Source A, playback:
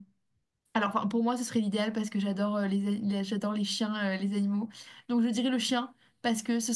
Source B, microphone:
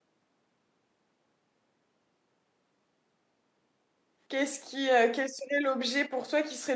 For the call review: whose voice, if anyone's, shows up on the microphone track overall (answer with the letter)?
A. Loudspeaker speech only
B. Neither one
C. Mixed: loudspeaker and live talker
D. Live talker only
D